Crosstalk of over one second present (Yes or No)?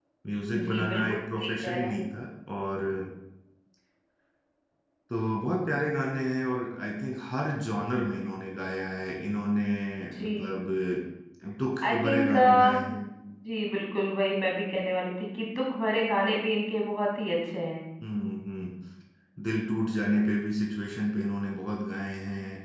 Yes